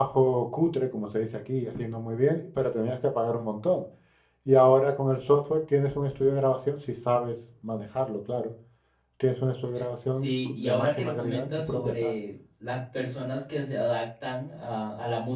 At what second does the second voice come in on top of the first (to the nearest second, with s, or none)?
10 s